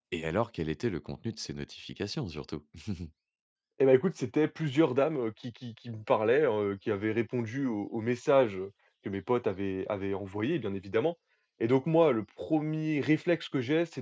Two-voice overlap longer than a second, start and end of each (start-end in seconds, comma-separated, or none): none